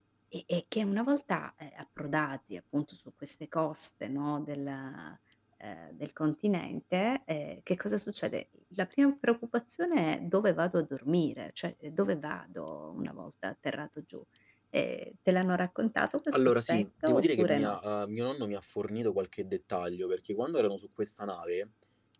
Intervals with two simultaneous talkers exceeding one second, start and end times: 16.3-17.8

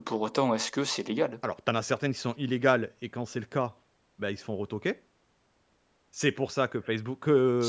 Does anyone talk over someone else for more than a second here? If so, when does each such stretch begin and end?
none

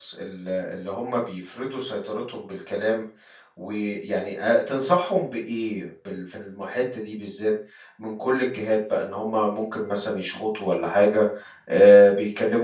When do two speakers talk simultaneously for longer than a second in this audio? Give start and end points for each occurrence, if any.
none

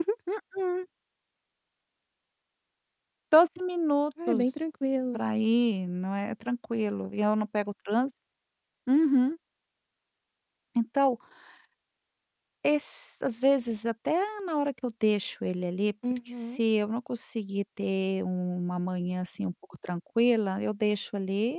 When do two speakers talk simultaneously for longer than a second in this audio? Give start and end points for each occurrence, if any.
none

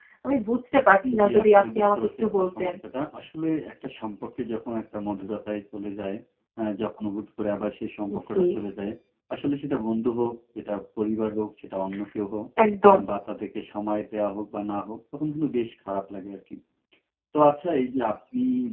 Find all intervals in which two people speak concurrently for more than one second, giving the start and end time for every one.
1.2-2.7

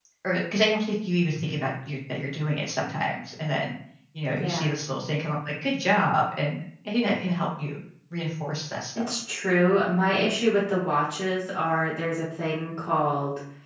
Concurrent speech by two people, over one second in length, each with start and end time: none

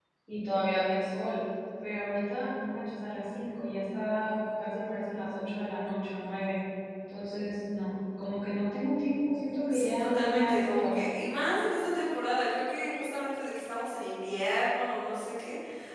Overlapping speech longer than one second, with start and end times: 9.7-11.0

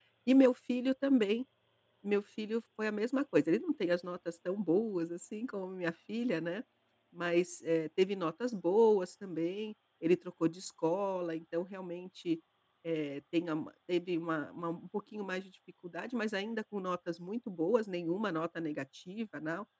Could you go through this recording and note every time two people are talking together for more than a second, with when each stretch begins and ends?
none

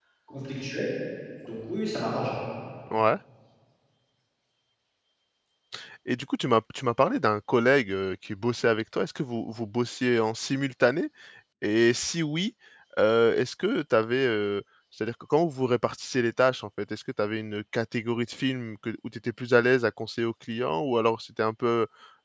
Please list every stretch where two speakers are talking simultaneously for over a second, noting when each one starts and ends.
none

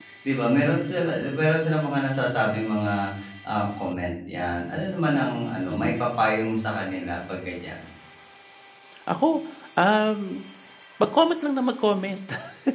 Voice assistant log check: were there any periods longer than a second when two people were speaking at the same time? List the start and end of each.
none

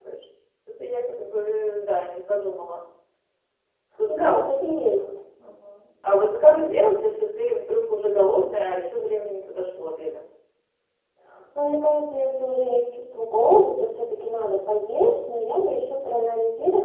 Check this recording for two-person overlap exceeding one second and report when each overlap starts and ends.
none

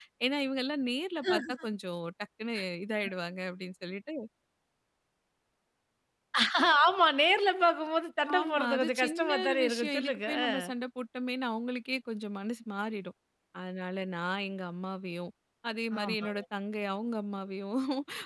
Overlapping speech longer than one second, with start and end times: 8.4-10.5

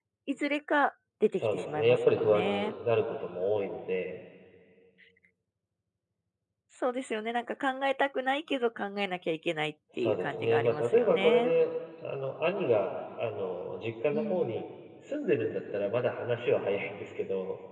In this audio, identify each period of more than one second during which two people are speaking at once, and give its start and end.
1.4-2.7, 10.0-11.5

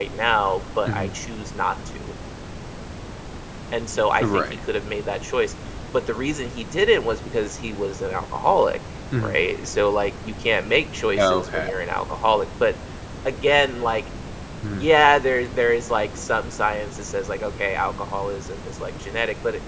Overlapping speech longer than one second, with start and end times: none

